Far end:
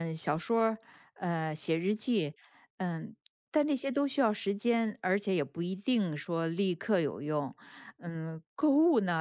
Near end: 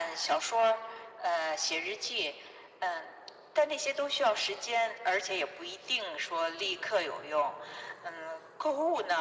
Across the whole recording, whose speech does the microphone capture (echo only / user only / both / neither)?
echo only